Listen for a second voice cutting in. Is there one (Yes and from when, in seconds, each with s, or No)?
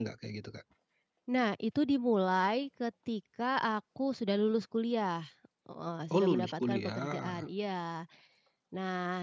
Yes, from 6.2 s